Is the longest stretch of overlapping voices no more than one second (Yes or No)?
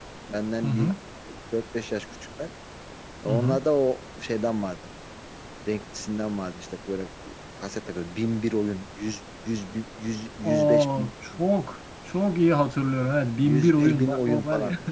No